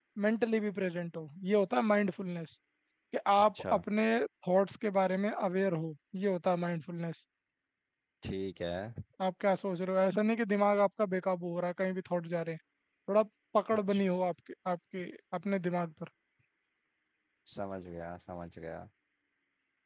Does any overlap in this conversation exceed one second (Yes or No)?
No